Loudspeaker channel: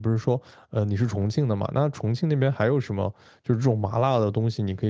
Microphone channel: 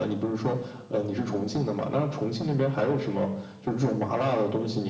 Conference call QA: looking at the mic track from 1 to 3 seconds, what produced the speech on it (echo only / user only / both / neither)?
echo only